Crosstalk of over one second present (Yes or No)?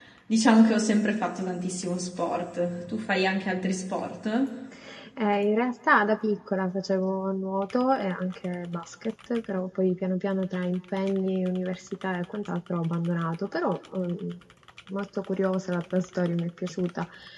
No